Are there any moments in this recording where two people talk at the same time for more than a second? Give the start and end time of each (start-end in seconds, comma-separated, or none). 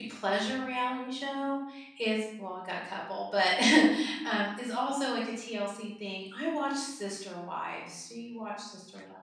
none